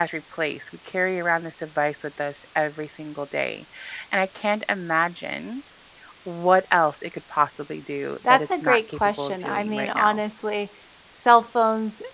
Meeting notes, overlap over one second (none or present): present